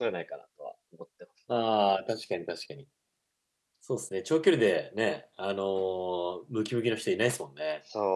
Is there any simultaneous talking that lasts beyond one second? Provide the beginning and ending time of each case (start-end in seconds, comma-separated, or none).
none